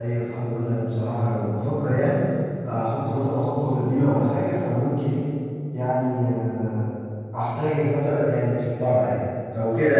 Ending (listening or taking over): taking over